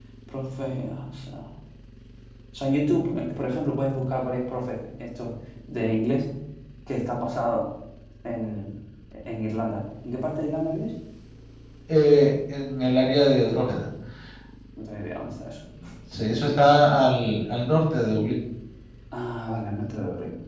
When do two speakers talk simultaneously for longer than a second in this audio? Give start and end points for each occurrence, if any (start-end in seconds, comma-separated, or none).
none